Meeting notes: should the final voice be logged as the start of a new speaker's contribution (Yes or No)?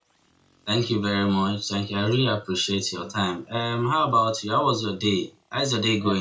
Yes